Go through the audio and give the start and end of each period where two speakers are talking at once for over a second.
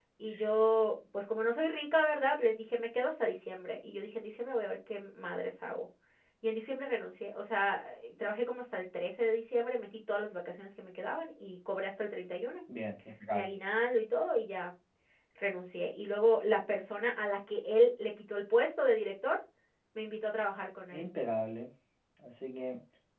none

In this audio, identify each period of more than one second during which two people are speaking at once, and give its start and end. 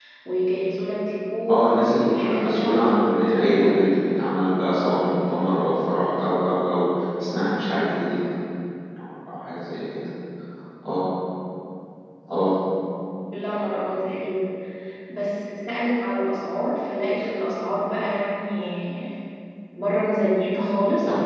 1.5-3.8

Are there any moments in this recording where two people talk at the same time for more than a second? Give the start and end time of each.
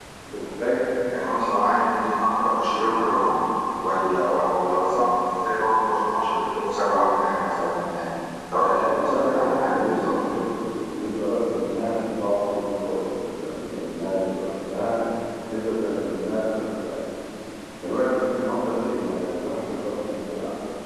8.6-10.1

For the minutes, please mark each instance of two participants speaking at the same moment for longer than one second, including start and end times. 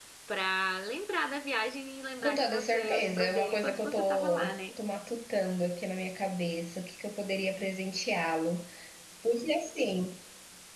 2.2-4.6

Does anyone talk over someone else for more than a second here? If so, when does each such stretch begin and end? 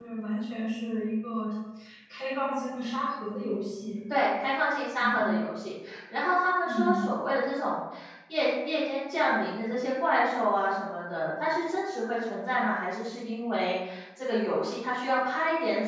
none

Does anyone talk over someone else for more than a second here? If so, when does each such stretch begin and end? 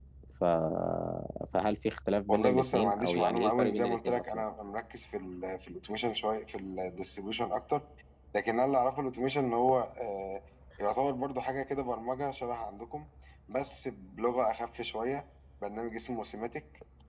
2.3-4.4

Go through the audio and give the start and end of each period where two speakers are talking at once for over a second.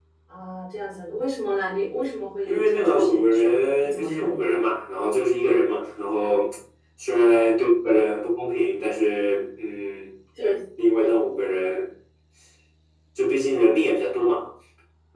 2.5-4.3

